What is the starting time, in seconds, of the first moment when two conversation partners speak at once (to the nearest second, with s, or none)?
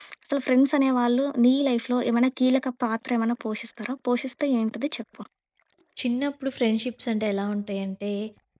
none